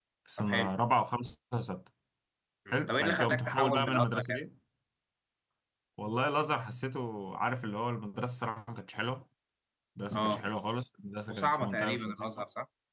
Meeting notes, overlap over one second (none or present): present